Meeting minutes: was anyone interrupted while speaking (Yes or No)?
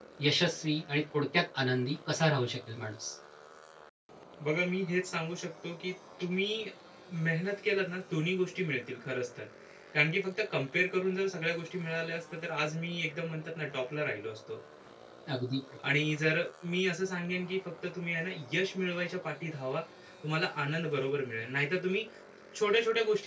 No